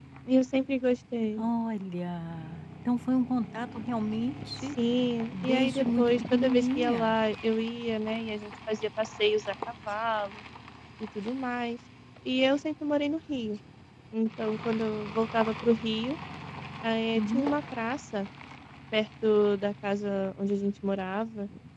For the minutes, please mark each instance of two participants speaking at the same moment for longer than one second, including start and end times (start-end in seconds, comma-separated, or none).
5.4-7.2